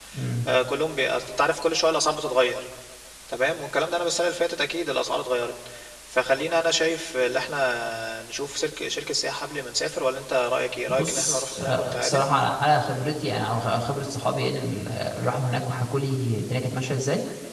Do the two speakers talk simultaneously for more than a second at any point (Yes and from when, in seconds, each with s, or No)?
Yes, from 10.9 s